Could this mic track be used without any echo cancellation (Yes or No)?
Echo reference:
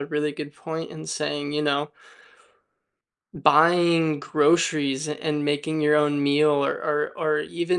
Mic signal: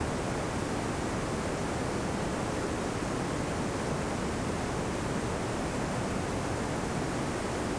Yes